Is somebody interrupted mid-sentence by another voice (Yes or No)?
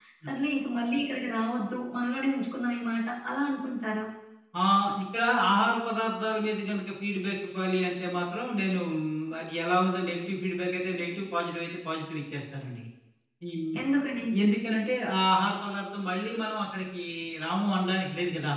No